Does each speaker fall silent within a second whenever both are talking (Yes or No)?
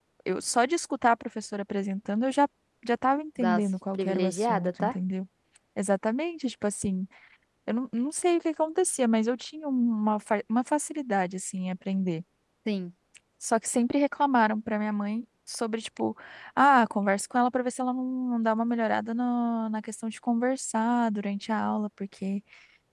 No